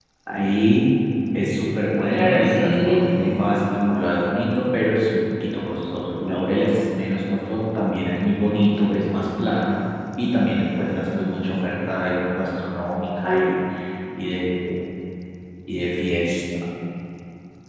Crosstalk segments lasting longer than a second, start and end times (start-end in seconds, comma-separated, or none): 2.0-3.3